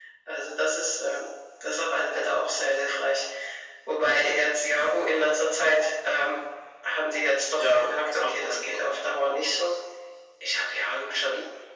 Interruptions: present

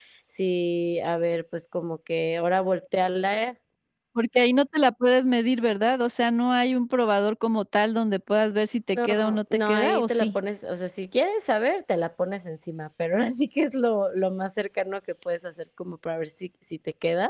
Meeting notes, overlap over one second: present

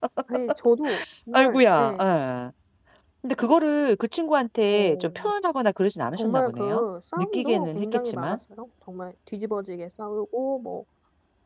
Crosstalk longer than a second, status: present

